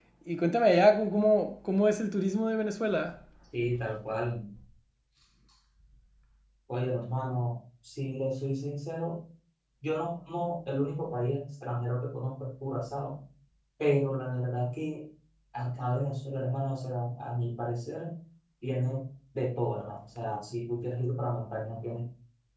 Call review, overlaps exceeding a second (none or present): none